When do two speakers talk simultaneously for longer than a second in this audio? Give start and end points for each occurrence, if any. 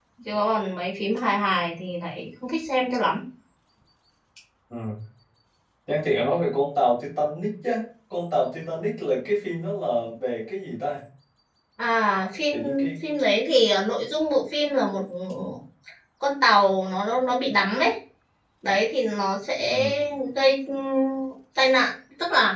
none

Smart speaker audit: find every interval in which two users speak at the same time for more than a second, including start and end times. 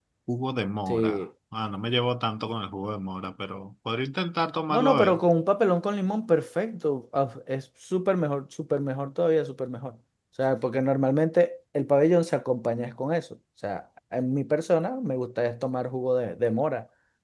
none

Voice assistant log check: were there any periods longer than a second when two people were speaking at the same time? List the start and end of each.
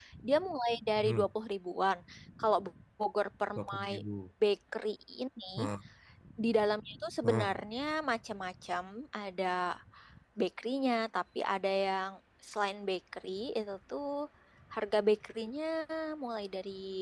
none

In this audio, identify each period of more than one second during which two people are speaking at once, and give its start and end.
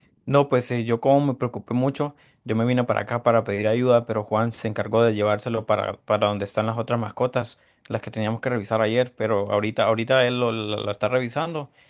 none

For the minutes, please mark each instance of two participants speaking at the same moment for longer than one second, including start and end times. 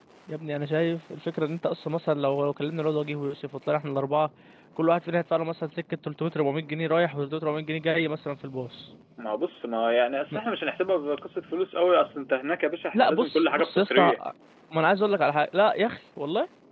12.9-14.2

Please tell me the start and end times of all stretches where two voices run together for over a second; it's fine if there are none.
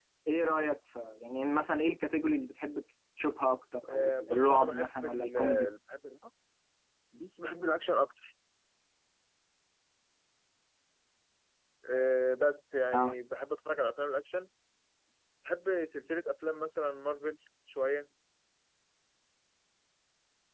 3.9-5.7

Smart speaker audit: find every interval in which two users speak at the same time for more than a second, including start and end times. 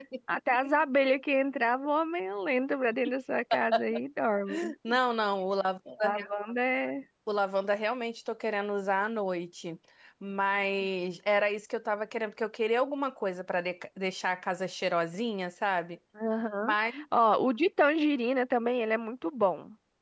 none

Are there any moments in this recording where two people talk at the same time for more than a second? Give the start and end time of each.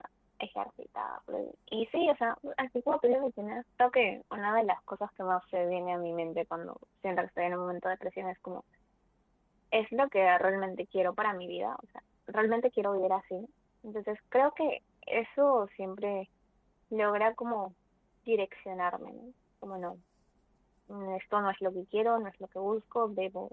none

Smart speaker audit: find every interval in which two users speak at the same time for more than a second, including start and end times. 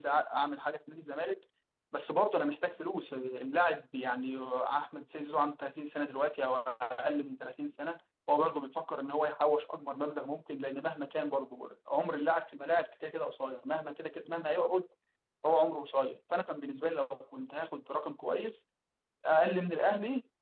none

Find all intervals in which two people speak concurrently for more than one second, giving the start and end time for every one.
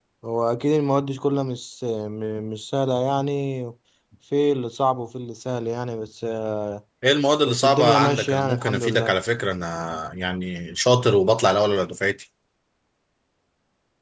7.5-9.2

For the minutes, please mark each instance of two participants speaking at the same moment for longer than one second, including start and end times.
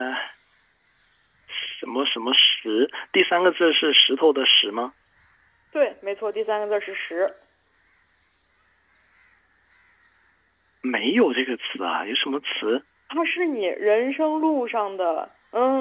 none

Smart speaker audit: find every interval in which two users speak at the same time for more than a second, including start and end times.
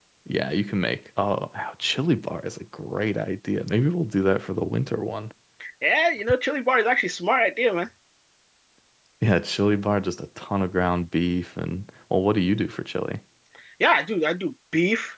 none

